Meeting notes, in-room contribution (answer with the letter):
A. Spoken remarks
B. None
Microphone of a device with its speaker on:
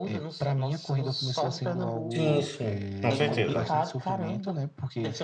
A